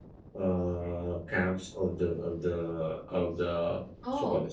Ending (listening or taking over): listening